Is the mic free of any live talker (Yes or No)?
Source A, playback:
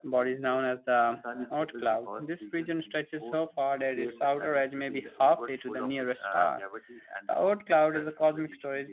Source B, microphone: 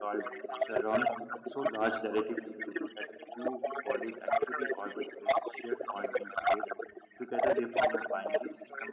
No